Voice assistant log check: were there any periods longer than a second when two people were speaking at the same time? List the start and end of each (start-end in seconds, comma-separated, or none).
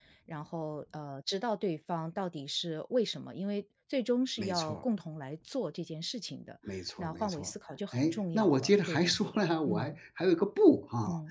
7.9-9.9